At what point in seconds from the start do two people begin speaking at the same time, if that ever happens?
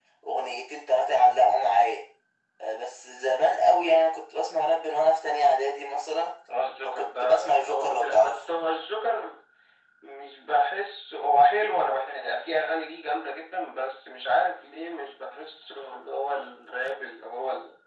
7 s

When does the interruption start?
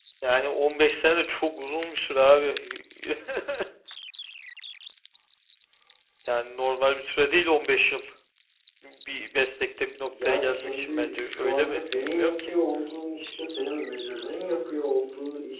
10 s

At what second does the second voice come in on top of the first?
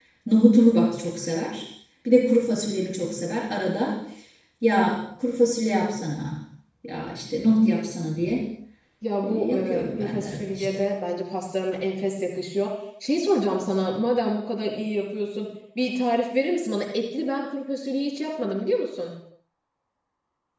9 s

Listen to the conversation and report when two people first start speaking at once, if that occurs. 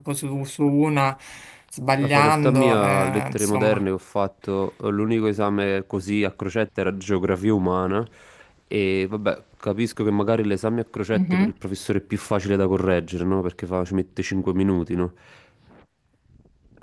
2 s

